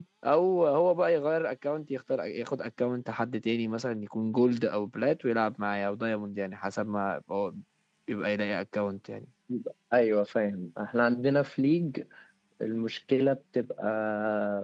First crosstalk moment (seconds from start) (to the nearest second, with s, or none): none